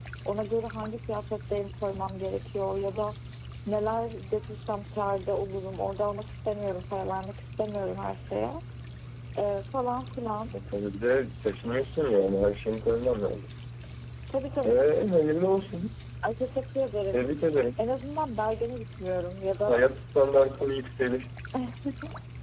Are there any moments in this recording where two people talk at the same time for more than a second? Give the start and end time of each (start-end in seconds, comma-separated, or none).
none